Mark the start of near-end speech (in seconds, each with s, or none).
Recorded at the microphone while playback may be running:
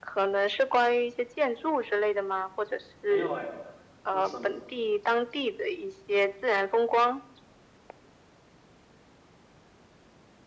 3.0 s